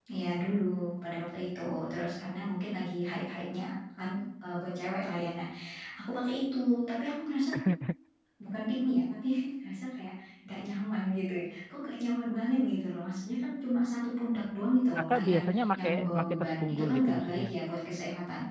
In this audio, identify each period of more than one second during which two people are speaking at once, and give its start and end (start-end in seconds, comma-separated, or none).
15.0-17.5